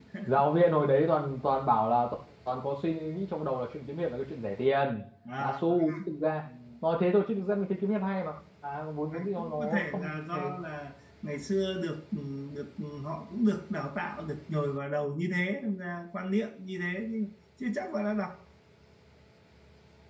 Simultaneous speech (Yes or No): Yes